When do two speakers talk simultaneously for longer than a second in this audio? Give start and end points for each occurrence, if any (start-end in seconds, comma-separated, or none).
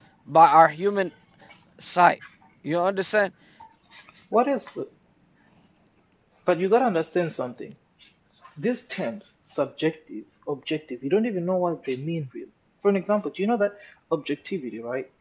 none